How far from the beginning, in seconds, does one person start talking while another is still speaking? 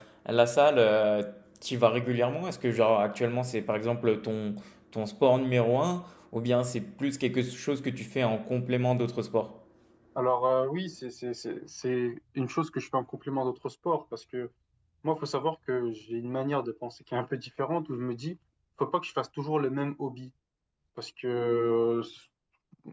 none

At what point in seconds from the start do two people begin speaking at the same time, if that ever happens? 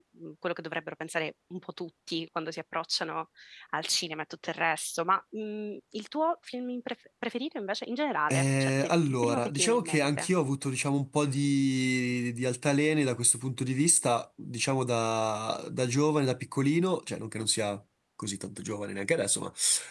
8.3 s

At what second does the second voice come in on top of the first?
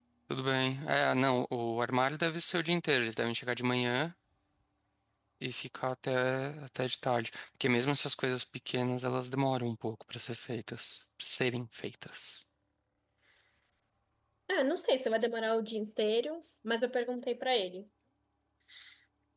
none

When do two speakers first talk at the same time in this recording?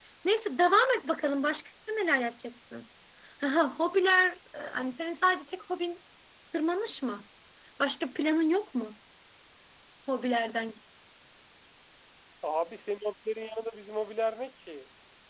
none

